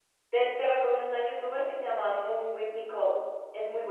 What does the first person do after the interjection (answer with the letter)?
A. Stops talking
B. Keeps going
A